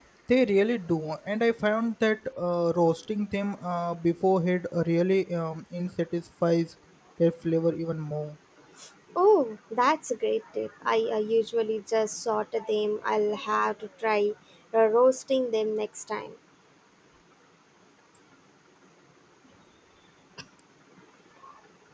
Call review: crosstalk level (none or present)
none